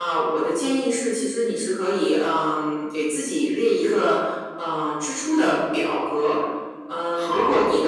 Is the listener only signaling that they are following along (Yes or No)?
Yes